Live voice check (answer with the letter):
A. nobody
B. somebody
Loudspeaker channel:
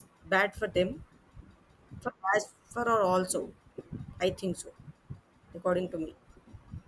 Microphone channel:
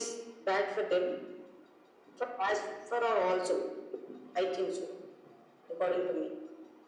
A